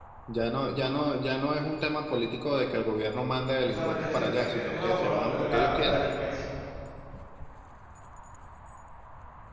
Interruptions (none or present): present